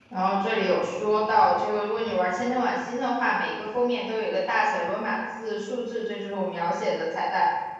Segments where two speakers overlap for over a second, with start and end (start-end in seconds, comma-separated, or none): none